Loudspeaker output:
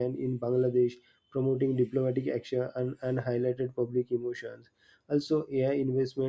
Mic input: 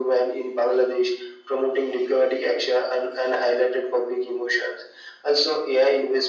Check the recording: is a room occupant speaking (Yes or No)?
No